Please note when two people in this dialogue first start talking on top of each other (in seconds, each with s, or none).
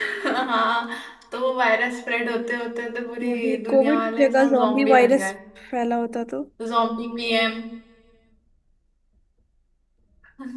3.2 s